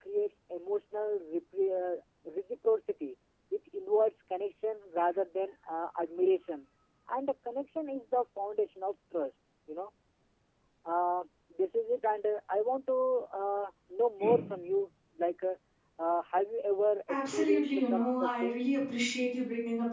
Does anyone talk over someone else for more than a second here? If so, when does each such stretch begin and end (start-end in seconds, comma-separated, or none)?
17.1-18.6